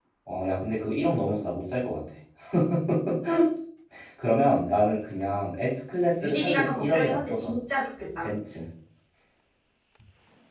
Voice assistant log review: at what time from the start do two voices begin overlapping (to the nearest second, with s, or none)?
6 s